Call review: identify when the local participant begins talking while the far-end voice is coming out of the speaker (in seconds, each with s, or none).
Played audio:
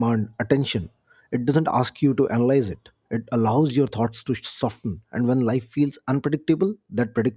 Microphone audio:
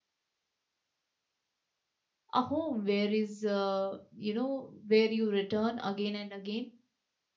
2.3 s